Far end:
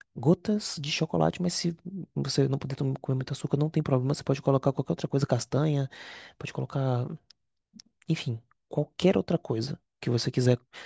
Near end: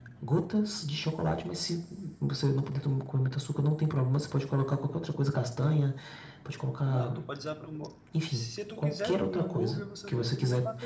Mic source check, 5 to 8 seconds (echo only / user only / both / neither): both